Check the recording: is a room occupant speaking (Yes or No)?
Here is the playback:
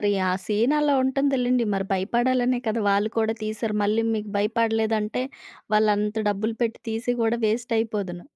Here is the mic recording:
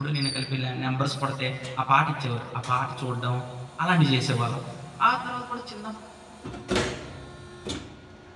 Yes